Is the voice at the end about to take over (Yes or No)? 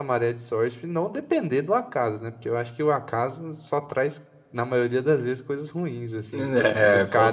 Yes